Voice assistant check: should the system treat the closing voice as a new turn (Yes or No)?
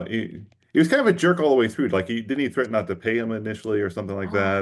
Yes